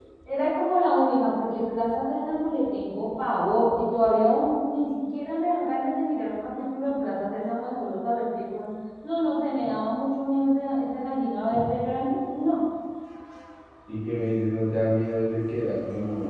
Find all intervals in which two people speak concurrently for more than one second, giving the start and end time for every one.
none

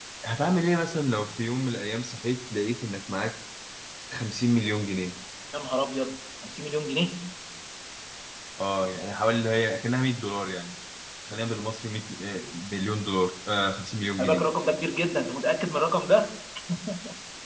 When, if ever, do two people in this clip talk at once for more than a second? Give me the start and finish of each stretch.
none

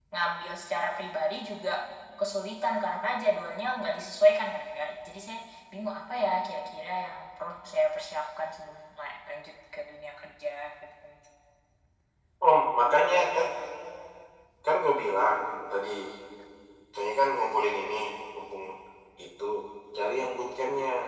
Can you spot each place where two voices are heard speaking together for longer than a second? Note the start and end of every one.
none

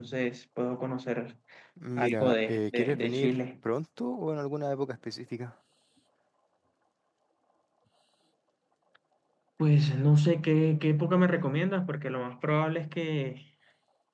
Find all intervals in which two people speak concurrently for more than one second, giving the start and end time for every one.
2.0-3.4

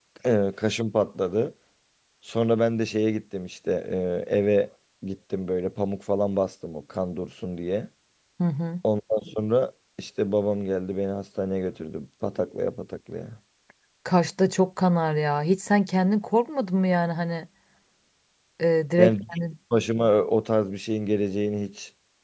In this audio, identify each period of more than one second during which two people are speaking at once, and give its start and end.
none

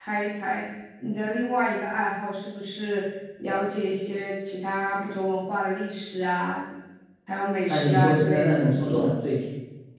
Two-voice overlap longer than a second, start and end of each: 7.7-9.0

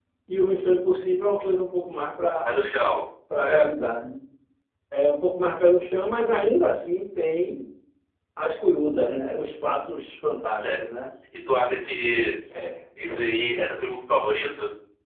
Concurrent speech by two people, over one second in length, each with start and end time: none

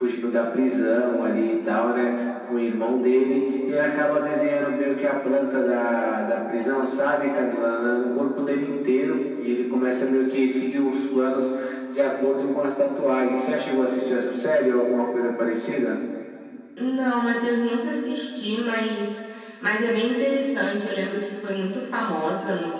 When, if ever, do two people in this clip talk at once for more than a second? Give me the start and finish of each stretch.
none

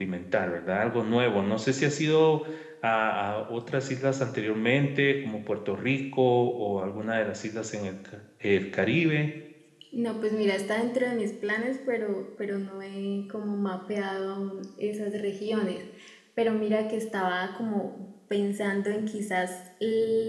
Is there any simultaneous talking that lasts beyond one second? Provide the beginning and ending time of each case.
none

